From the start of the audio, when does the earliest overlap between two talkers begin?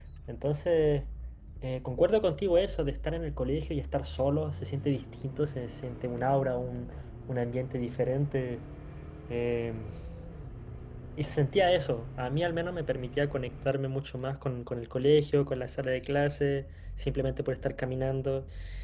none

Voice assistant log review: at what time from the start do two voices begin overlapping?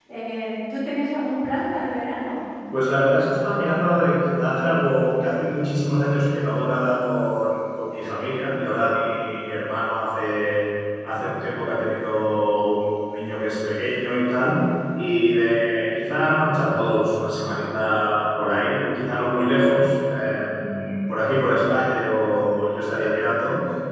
none

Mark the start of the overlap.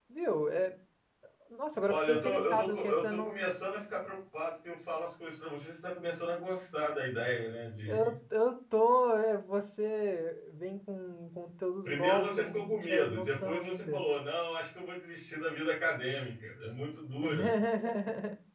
1.9 s

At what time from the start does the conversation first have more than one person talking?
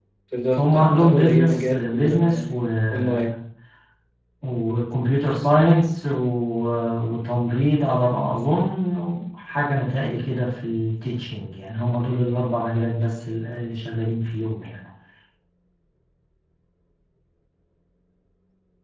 0.6 s

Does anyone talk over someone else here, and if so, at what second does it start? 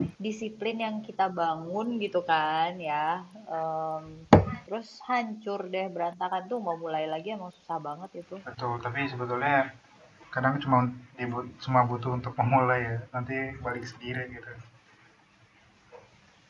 none

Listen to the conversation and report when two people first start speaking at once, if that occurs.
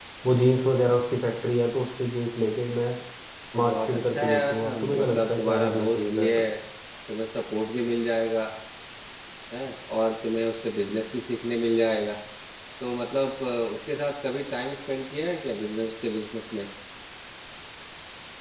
3.5 s

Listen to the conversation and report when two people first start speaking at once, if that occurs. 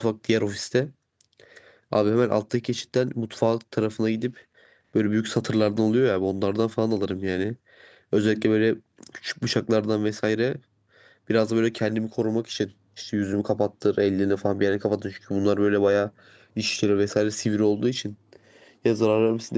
none

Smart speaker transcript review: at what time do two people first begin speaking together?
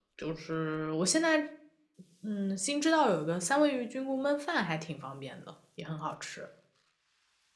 none

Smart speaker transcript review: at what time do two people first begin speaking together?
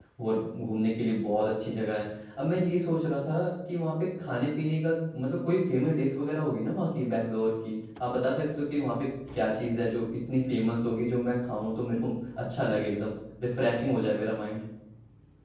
none

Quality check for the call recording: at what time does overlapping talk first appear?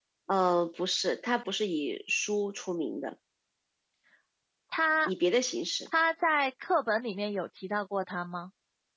none

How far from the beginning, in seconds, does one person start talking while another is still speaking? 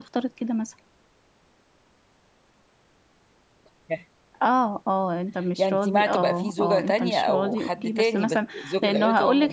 5.6 s

